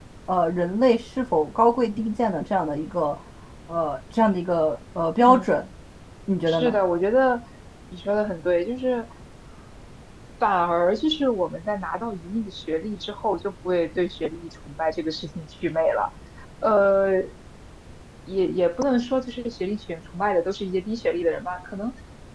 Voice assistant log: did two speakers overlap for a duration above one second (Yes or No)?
No